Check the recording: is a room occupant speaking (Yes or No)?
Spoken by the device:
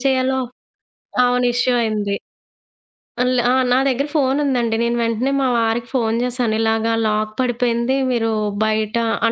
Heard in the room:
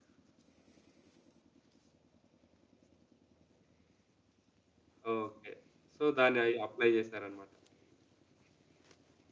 Yes